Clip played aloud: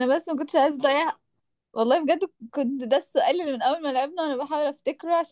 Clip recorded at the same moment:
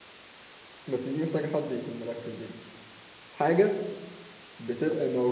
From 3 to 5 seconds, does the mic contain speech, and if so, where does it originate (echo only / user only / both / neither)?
user only